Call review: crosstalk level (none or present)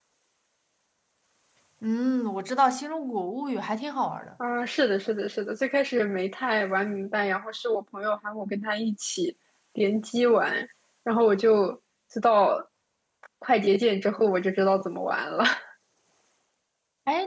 none